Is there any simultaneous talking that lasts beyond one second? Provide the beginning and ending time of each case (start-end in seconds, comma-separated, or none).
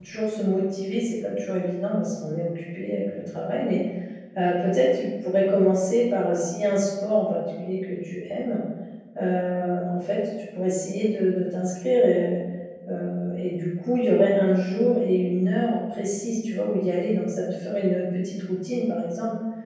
none